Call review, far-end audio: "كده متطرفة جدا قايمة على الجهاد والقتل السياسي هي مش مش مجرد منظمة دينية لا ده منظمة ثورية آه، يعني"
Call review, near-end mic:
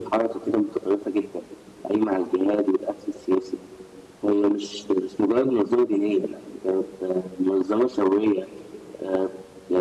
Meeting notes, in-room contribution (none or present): none